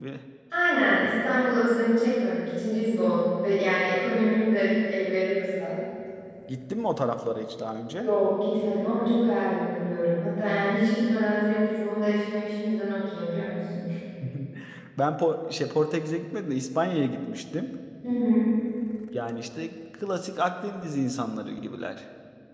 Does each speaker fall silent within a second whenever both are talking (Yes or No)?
Yes